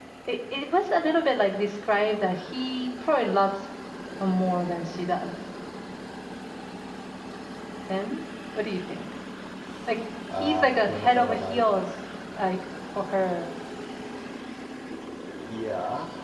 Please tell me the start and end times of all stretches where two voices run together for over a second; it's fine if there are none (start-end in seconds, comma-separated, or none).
10.4-11.7